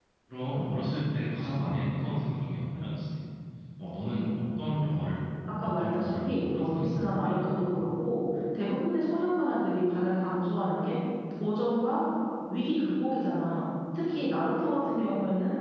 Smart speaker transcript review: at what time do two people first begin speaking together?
5.6 s

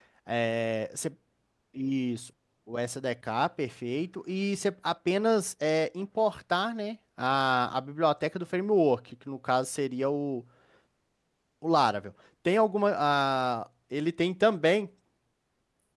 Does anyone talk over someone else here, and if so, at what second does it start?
none

